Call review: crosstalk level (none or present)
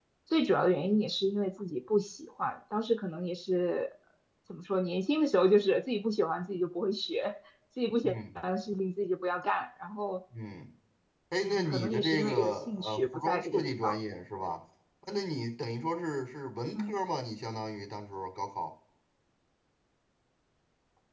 present